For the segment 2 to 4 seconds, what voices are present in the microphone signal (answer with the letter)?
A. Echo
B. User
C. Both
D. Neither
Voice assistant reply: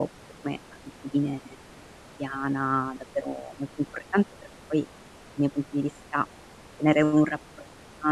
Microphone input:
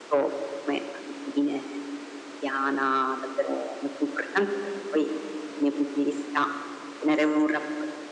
A